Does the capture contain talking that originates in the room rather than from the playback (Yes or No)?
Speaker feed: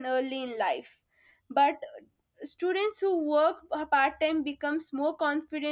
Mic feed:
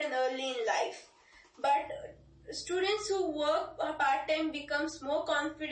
No